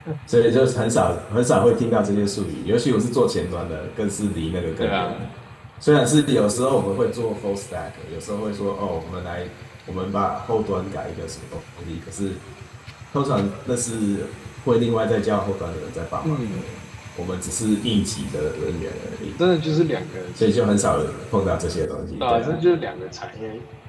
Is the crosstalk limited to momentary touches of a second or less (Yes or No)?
Yes